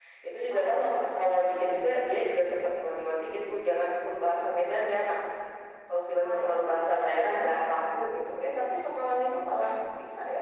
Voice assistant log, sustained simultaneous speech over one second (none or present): none